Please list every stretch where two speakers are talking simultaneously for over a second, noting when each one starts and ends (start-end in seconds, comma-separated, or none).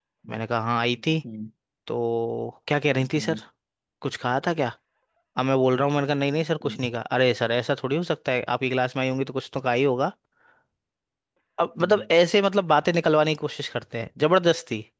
none